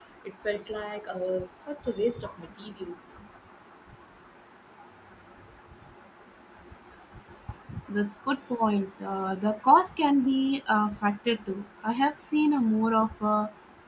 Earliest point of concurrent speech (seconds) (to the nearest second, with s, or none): none